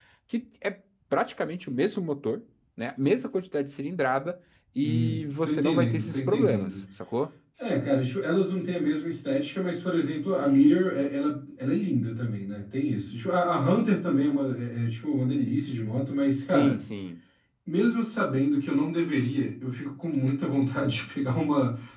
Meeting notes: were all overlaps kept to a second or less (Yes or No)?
No